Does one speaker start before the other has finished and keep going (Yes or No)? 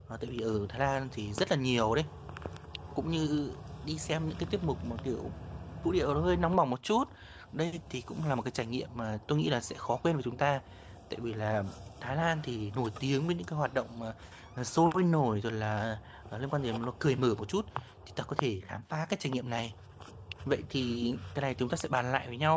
No